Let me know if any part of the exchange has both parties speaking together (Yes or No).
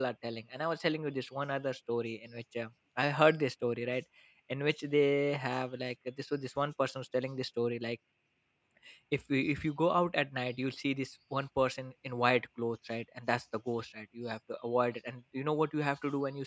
No